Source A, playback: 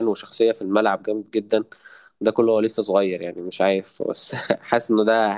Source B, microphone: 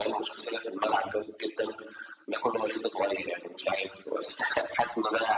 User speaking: No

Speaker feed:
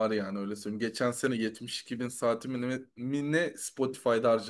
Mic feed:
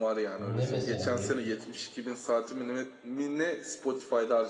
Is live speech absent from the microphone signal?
No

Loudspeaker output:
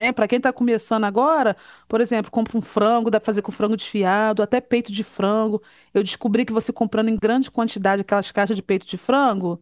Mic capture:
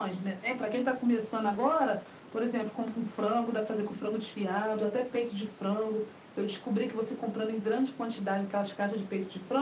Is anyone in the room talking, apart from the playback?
No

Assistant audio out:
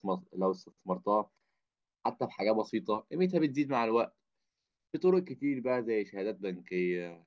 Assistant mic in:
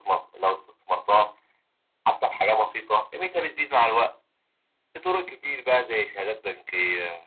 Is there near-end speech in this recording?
No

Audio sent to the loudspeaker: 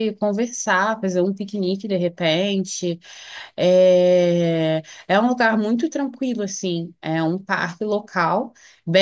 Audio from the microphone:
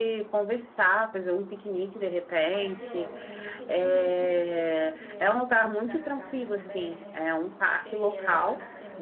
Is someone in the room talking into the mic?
Yes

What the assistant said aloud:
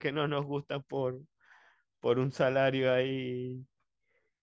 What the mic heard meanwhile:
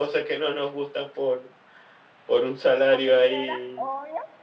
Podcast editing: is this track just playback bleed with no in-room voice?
No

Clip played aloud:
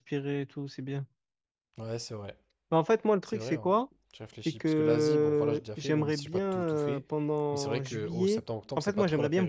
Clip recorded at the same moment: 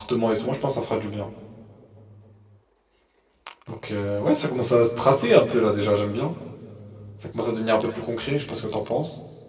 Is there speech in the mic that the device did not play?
Yes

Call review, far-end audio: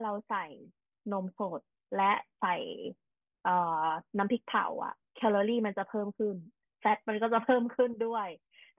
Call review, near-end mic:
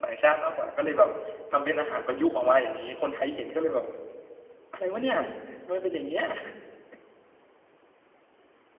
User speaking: Yes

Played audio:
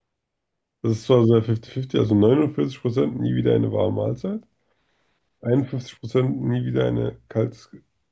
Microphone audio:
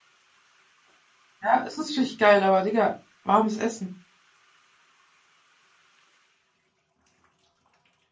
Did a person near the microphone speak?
Yes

